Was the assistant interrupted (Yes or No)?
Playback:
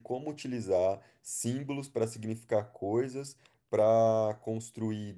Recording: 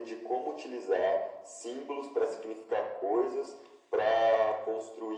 No